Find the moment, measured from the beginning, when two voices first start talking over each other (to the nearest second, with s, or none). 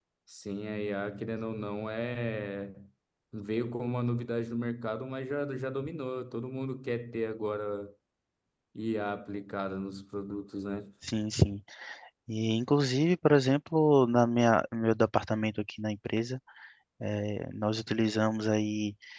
none